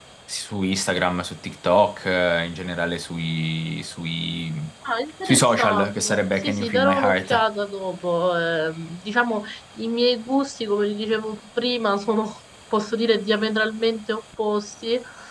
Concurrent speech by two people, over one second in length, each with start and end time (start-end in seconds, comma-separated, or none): 5.2-7.4